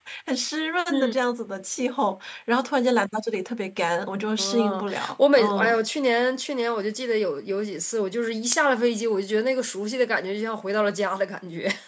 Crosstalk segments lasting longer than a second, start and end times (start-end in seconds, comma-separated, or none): 4.4-5.7